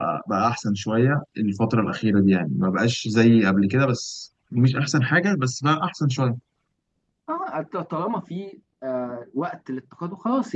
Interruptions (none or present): none